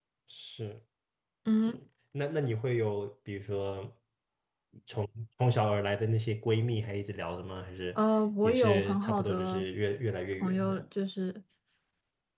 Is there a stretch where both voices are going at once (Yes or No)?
Yes